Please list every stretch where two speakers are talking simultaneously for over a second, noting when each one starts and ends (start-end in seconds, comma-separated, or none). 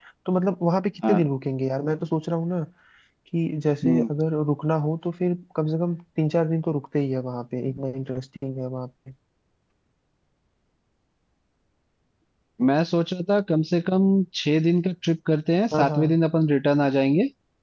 none